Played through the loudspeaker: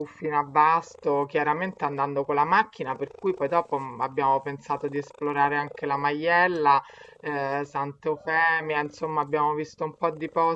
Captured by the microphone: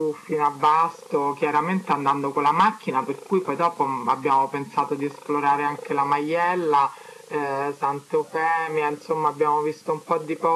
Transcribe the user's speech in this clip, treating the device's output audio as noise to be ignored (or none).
none